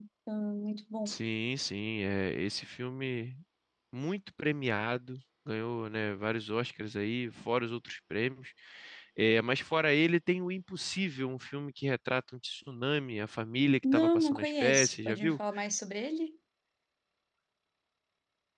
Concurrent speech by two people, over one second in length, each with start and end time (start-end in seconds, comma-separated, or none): 13.9-15.4